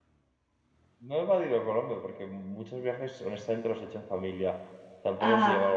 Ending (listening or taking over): listening